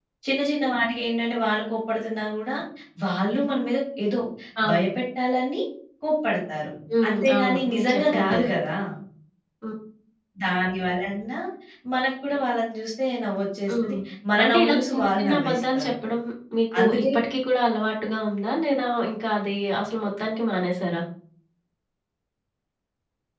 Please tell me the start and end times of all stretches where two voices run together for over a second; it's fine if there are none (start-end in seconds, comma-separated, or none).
7.1-8.6, 14.4-15.9